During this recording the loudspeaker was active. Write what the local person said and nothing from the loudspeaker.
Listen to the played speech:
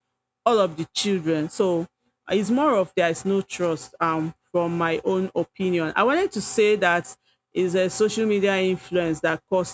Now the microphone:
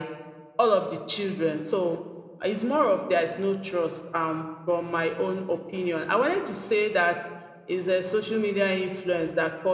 none

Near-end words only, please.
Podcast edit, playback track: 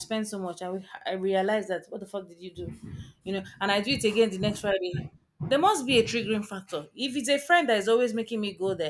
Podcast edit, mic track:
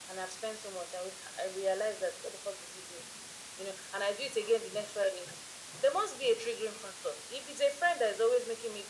none

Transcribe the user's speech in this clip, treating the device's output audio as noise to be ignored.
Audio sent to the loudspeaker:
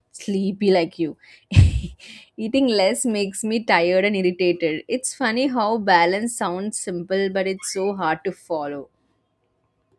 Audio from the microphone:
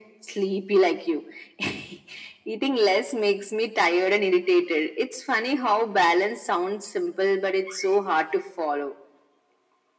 none

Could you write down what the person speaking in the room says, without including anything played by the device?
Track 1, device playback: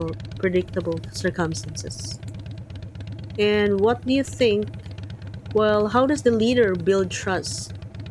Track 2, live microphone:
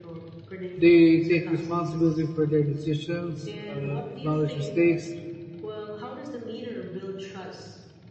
They take responsibility for their decisions, uh, acknowledge mistakes,

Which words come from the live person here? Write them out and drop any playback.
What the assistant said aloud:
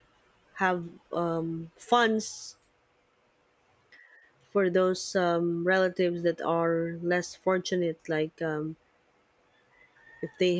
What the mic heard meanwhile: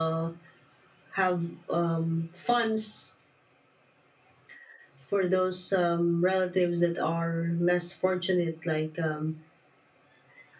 none

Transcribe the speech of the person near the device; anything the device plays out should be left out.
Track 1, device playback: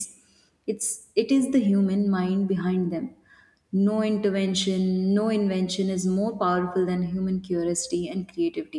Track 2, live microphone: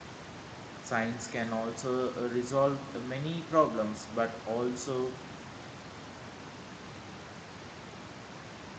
Science can also uh, resolve many problems, but also

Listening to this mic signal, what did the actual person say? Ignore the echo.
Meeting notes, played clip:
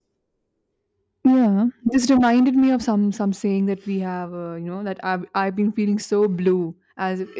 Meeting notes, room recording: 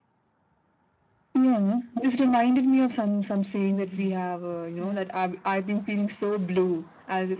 hmm Yeah.

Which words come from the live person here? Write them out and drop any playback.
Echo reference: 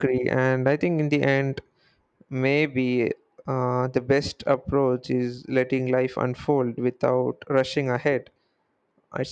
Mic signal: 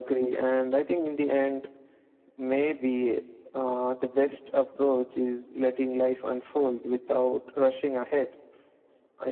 none

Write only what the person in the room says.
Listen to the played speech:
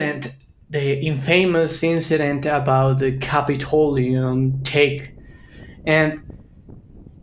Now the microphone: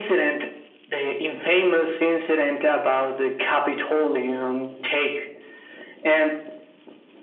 none

